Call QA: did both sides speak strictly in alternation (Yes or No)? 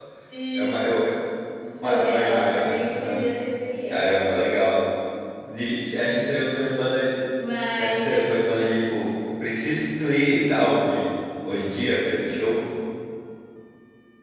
No